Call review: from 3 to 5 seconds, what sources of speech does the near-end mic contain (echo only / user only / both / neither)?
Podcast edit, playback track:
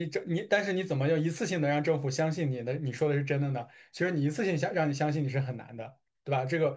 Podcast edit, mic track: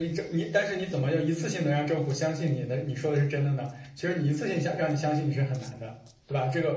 echo only